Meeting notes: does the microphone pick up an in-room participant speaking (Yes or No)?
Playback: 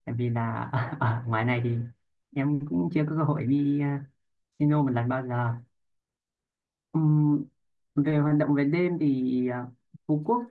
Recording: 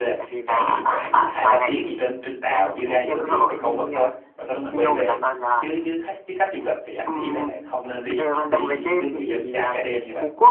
Yes